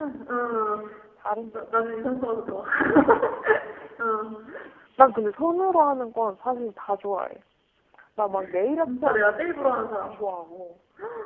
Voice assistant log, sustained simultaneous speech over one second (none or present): present